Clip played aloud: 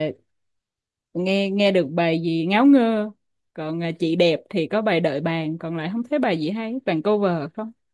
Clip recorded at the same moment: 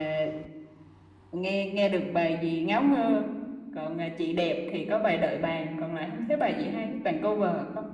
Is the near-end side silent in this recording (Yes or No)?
Yes